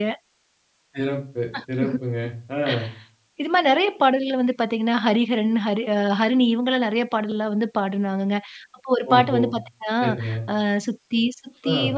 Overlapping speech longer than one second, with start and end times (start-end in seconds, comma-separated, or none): none